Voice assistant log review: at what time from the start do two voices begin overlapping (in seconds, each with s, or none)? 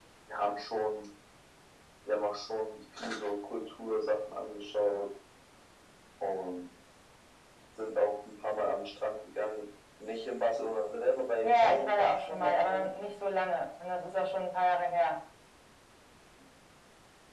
11.4 s